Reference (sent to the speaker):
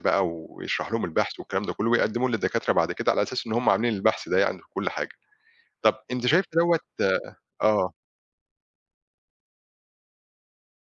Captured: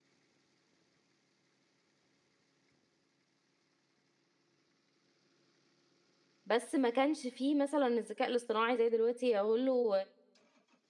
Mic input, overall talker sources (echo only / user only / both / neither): user only